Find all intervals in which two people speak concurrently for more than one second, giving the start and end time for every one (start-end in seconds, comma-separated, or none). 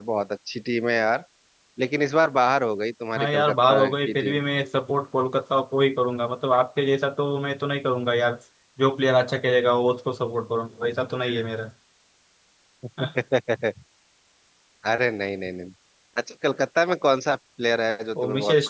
3.2-4.4